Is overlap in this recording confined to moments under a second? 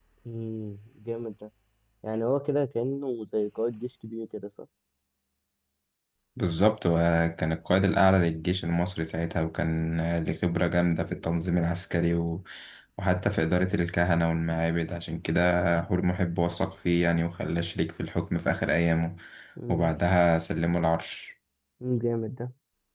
Yes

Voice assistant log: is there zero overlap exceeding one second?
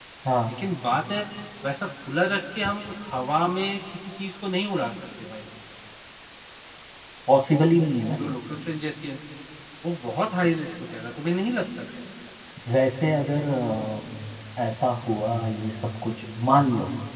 Yes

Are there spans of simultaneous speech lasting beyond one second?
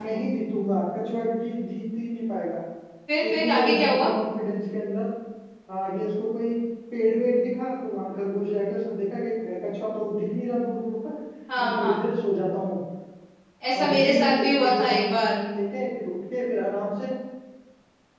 Yes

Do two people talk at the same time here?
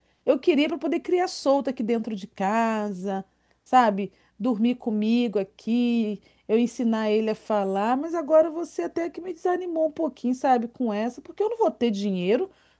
No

